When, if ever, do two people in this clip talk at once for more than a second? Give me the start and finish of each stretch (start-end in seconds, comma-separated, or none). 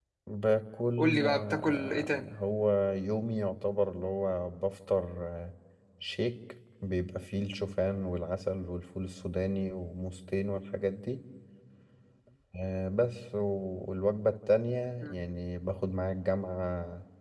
1.0-2.3